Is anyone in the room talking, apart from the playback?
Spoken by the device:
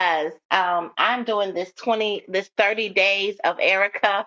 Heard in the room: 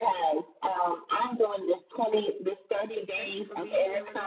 Yes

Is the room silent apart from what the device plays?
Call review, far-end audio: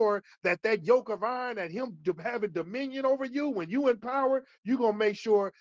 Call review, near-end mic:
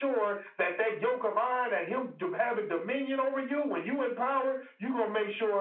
Yes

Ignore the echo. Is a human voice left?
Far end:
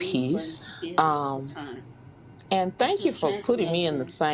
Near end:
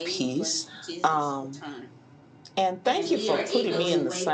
Yes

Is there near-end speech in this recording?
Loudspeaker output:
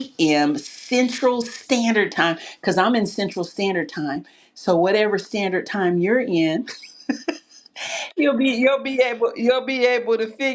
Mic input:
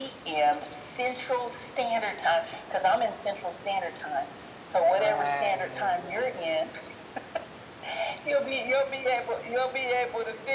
Yes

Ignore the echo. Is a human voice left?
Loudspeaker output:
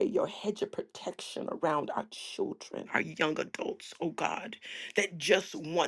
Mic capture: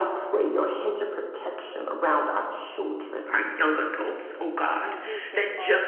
Yes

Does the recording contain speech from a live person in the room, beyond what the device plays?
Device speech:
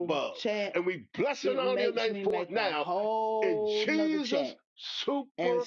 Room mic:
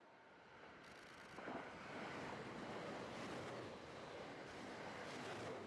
No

